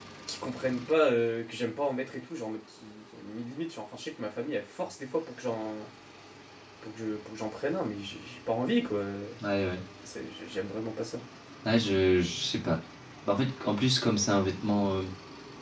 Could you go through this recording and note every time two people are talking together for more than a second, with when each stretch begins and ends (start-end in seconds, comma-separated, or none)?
none